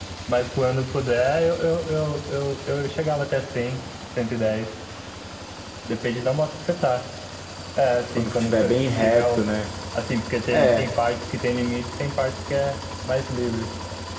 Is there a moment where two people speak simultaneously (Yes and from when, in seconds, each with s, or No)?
Yes, from 8.2 s